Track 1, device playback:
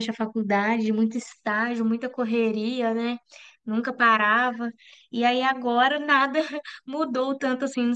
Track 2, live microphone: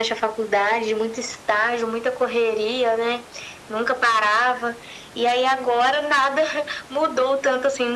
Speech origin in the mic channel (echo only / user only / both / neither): echo only